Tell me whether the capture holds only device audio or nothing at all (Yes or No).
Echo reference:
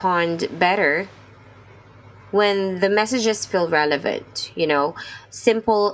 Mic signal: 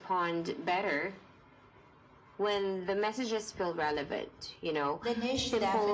No